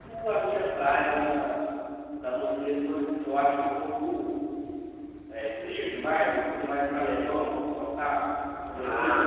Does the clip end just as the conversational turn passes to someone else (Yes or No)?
Yes